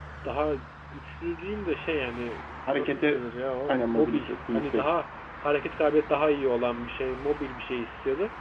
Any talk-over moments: Yes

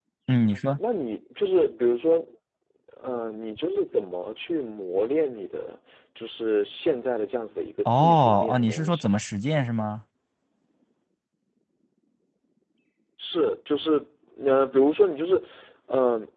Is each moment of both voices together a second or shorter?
No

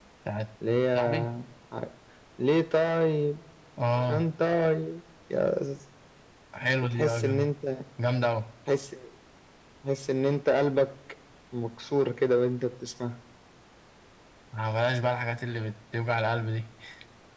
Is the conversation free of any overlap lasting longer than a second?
Yes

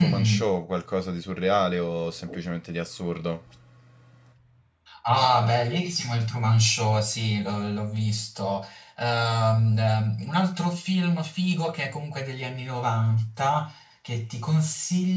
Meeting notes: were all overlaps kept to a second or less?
Yes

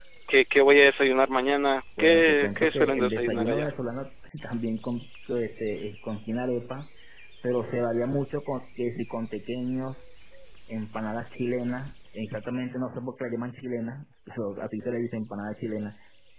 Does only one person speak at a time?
No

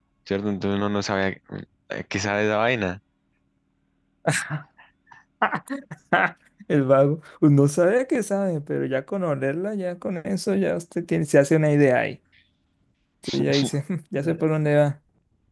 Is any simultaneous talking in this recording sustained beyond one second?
No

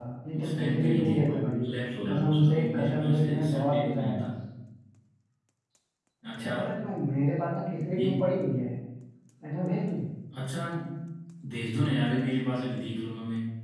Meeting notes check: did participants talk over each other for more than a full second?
Yes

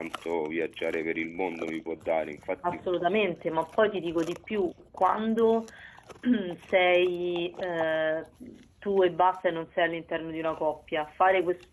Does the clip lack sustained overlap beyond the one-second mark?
Yes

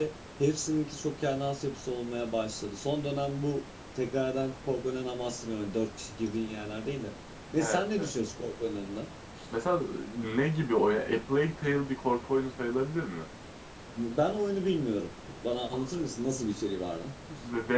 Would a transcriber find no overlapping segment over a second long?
Yes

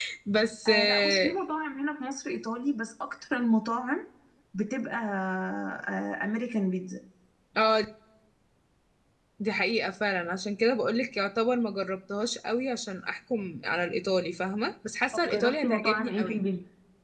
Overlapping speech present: Yes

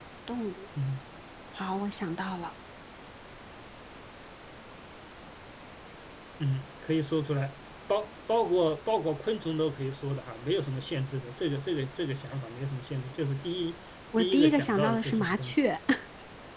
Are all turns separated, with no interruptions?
No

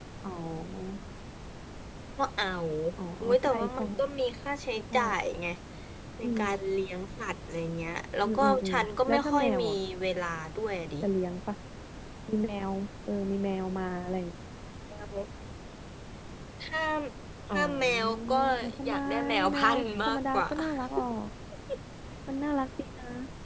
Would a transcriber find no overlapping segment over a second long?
No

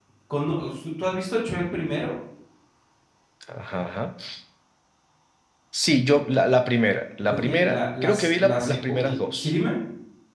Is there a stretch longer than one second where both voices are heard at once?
Yes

